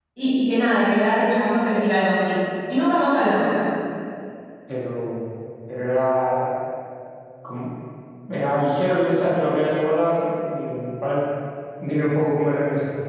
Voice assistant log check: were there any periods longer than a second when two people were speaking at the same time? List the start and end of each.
none

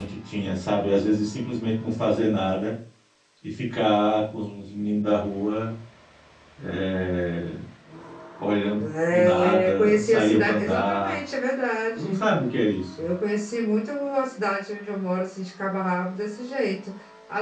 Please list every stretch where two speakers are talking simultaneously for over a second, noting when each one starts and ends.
8.8-11.2

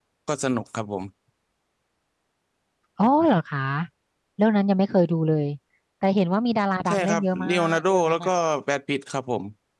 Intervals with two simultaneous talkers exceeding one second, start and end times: 6.9-8.3

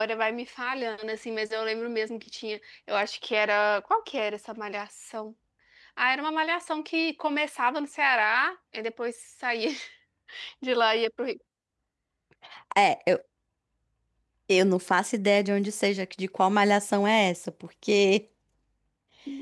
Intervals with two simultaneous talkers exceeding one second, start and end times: none

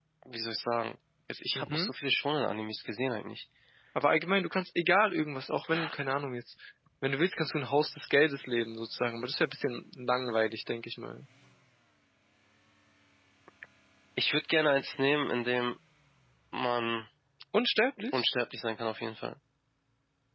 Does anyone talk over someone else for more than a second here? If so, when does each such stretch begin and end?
none

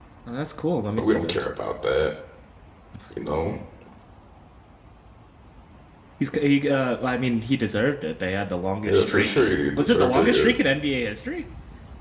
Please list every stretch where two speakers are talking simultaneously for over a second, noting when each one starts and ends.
8.8-10.5

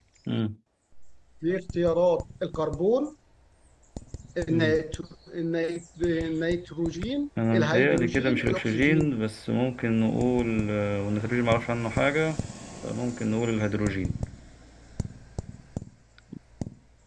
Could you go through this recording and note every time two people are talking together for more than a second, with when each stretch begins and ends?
7.5-9.1

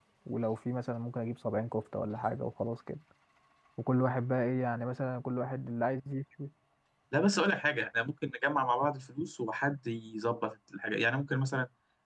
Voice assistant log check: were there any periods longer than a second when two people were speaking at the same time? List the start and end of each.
none

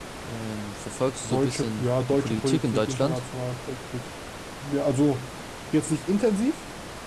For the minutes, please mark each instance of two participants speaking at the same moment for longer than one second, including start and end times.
1.3-3.2

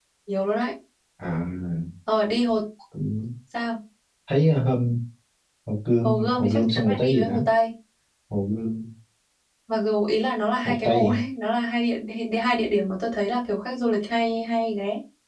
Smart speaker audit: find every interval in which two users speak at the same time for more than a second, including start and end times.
6.0-7.4

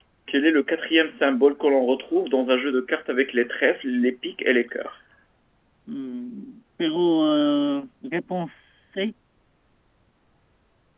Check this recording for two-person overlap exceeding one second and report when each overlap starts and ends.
none

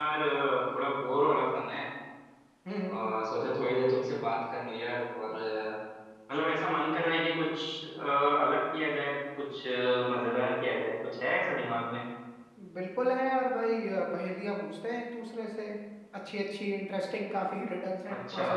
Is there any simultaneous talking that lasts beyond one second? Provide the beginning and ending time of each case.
none

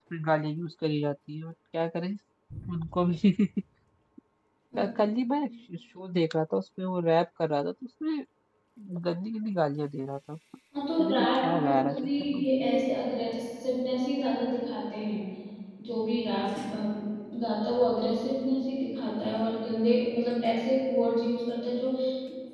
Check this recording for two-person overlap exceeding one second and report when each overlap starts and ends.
11.0-12.4

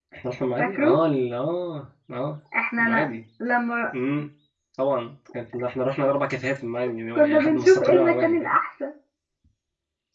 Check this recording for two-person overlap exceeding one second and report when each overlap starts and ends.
7.2-8.5

